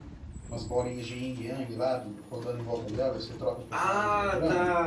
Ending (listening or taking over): taking over